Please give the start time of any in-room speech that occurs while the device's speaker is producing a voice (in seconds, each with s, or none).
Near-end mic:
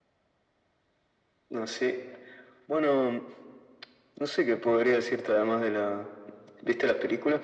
none